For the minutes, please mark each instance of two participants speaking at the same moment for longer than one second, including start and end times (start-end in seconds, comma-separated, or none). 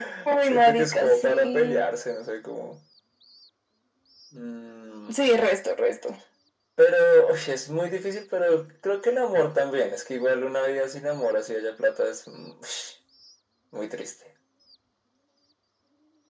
0.5-1.8